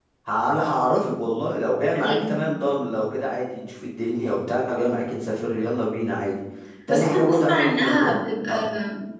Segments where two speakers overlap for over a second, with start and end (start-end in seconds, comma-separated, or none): 6.9-8.6